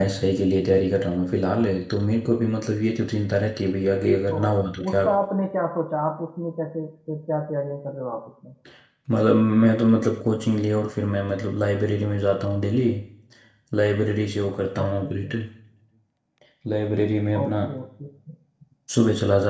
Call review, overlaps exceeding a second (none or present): none